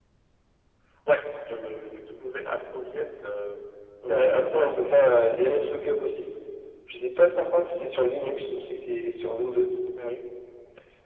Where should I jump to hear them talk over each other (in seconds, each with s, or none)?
4.0 s